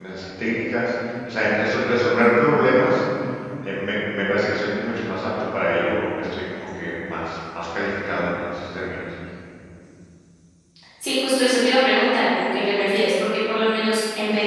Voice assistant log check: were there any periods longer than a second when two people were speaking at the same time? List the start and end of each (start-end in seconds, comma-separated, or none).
none